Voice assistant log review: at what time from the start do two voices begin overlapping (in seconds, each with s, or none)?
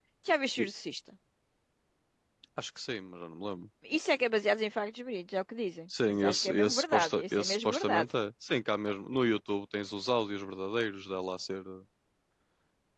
5.9 s